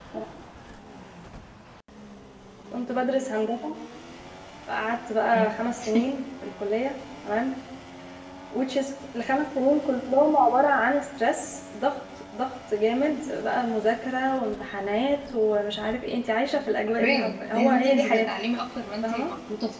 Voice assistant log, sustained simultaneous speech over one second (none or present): present